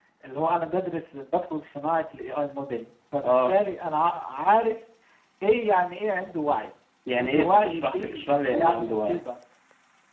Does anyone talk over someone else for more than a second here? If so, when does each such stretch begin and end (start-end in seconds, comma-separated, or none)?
7.2-9.2